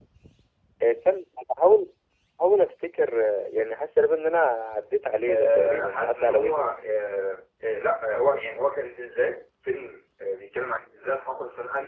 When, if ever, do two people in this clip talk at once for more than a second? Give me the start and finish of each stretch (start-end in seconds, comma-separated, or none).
5.3-6.7